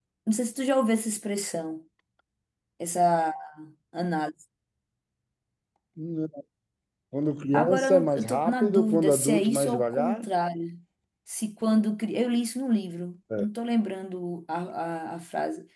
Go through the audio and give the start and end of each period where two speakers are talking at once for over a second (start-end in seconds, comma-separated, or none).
7.5-10.3